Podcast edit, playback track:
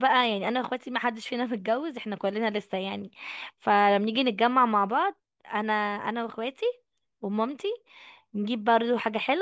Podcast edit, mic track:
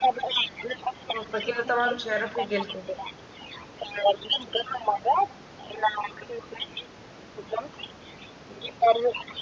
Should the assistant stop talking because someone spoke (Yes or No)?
Yes